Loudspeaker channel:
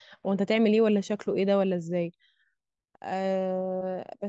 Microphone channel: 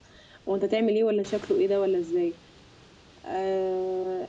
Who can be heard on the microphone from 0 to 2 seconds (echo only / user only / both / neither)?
echo only